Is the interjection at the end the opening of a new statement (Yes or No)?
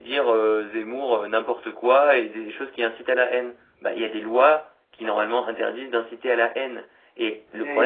Yes